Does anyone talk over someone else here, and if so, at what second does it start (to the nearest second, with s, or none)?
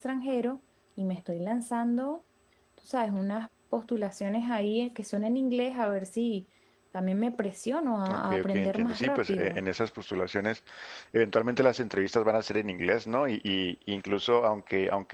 8 s